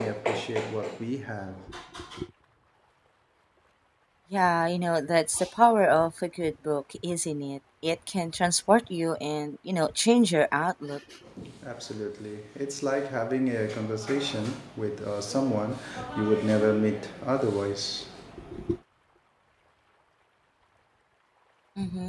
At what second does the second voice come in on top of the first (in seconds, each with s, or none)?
none